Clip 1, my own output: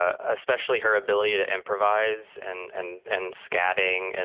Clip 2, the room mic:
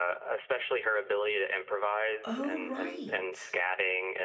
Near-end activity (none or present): present